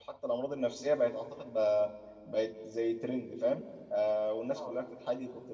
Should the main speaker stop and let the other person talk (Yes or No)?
No